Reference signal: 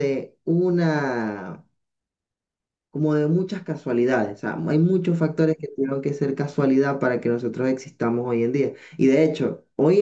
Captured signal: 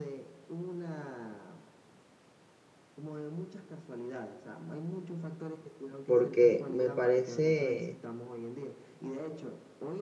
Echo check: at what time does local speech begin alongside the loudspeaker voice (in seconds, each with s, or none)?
6.1 s